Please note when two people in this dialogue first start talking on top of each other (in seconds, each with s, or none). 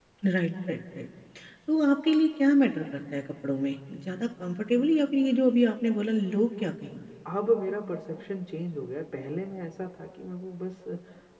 none